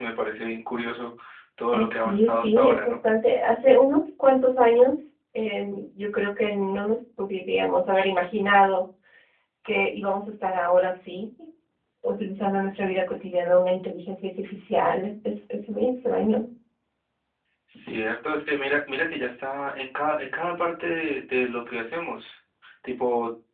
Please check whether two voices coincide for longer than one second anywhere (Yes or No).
Yes